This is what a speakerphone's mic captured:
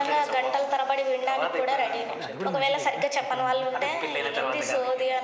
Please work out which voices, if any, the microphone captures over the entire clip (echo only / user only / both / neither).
both